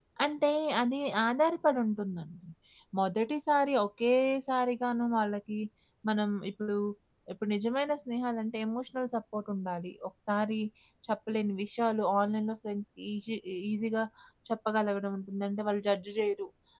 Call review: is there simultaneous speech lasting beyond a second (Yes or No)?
No